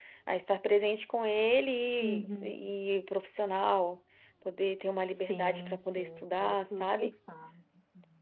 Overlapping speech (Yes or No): Yes